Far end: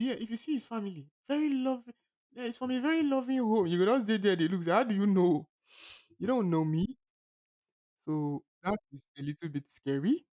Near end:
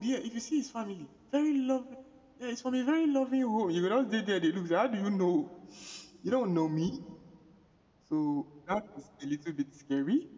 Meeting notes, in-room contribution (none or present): none